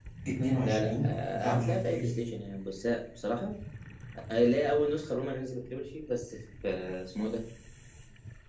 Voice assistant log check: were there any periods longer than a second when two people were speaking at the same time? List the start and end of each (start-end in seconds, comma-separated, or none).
0.6-2.3